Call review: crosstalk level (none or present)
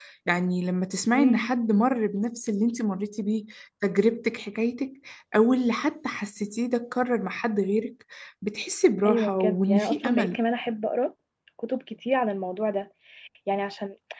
present